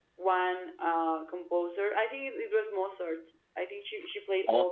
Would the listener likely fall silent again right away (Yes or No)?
Yes